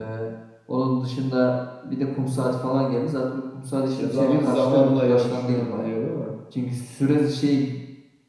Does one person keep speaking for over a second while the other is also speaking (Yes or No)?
Yes